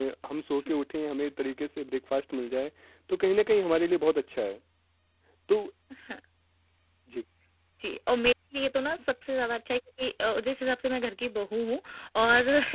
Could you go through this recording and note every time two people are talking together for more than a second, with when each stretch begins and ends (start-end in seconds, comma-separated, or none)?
none